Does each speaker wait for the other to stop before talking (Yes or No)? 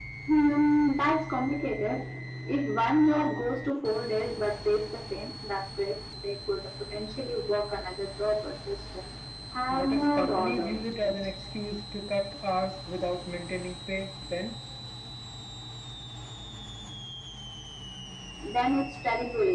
No